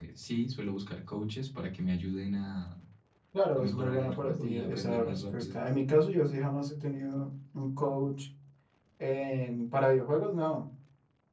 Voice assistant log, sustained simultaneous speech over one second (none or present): present